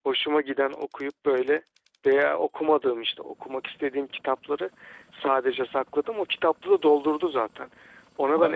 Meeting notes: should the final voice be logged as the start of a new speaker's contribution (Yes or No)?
No